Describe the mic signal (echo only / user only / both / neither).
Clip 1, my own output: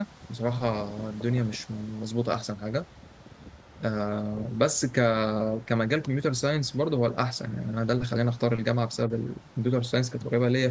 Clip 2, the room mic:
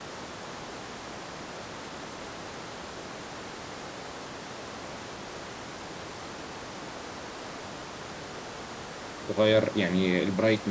user only